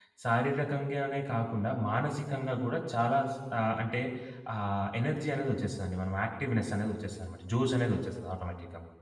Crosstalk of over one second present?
No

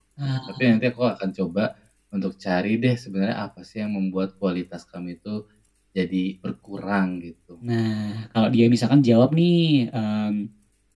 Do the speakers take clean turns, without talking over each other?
Yes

